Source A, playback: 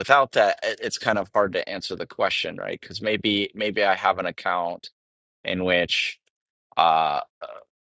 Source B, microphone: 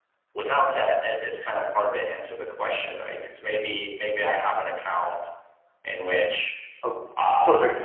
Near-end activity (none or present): present